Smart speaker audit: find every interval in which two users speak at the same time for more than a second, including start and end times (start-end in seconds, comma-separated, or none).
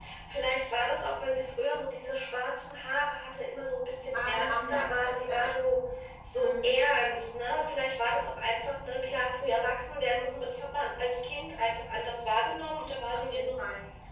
4.0-5.7